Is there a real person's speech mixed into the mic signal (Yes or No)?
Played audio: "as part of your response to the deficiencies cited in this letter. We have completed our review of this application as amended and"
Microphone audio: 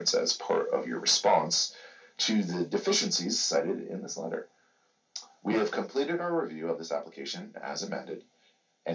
No